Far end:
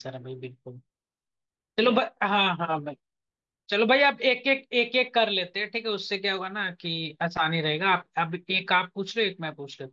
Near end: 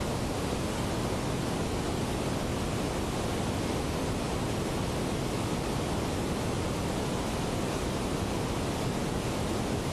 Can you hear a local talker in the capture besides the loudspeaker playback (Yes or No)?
No